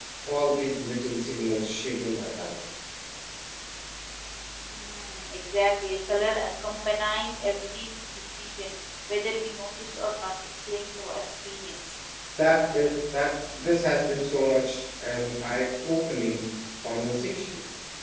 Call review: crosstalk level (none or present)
none